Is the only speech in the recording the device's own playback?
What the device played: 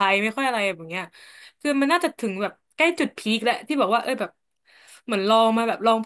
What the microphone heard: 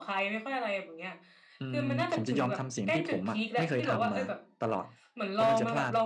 No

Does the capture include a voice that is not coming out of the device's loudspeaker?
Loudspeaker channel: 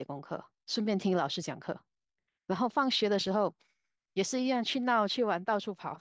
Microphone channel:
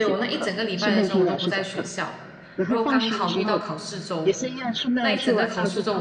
Yes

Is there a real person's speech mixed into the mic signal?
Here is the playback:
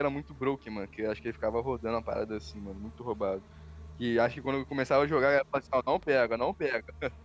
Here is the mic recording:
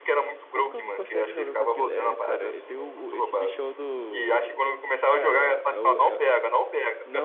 Yes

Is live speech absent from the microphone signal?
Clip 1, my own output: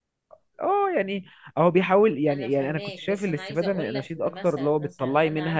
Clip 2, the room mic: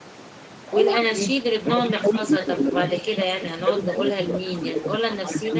No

